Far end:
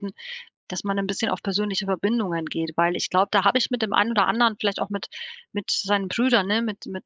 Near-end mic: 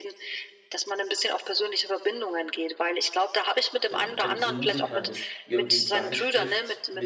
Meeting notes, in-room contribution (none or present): present